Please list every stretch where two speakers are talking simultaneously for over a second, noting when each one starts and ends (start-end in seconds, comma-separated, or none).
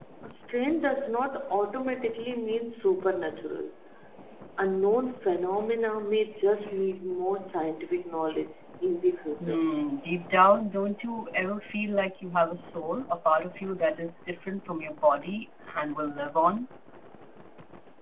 none